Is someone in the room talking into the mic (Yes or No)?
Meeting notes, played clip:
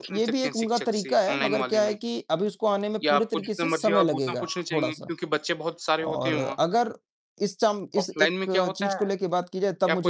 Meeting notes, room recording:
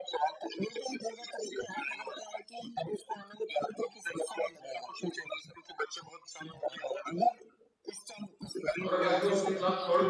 Yes